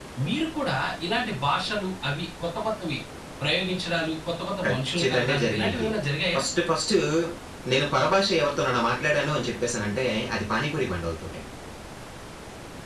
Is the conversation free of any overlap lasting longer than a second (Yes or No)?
No